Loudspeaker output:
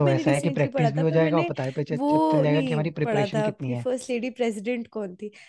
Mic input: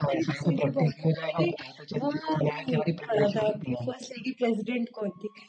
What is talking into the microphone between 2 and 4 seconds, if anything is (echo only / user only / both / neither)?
echo only